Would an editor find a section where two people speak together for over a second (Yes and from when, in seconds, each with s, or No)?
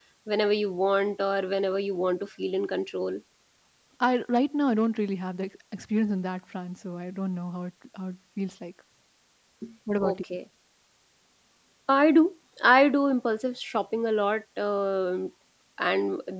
No